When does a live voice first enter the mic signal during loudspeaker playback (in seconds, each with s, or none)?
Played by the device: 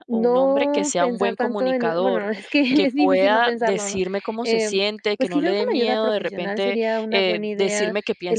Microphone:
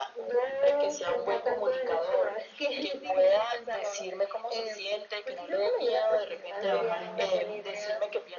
6.6 s